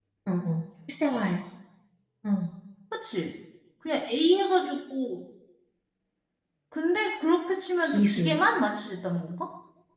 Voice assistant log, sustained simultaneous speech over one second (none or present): none